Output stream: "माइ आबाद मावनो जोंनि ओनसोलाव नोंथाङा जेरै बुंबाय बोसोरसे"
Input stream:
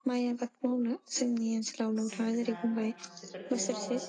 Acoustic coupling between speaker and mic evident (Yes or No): Yes